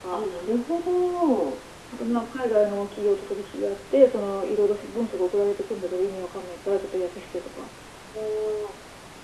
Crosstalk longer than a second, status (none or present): none